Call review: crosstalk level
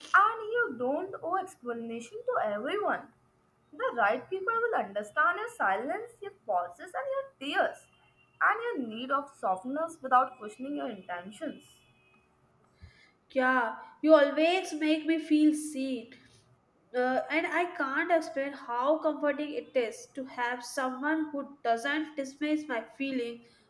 none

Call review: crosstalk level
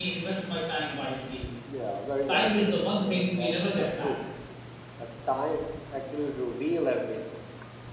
present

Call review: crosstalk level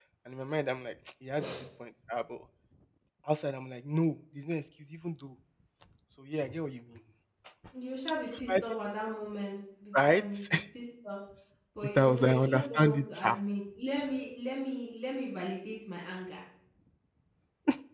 present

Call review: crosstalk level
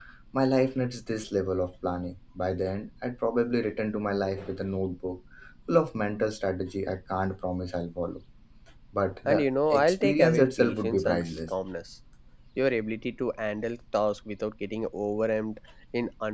present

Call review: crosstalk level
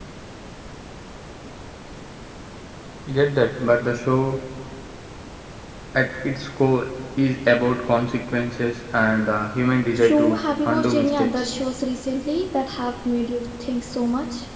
present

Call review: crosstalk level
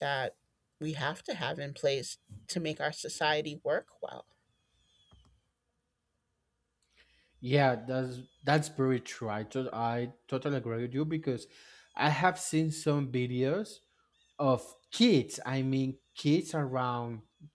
none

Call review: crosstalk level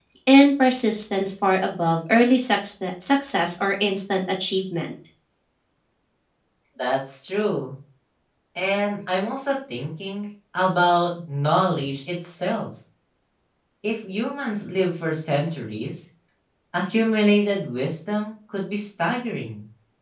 none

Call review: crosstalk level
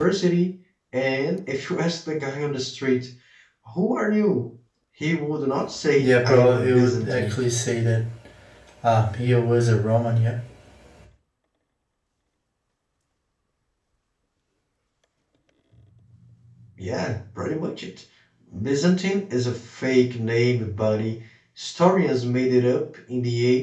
present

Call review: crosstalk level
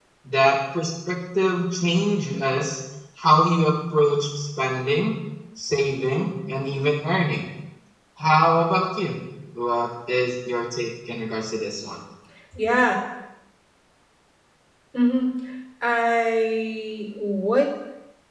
none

